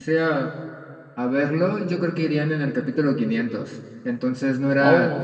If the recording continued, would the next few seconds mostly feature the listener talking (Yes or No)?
No